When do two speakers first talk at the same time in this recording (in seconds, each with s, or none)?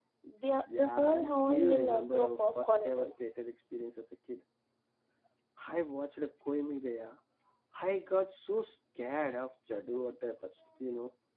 0.8 s